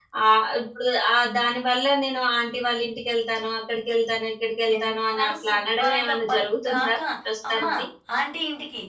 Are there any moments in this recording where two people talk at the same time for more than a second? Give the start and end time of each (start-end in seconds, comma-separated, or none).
4.8-7.0